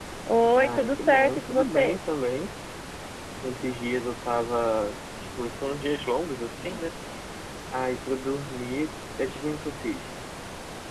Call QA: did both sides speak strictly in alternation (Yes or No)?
No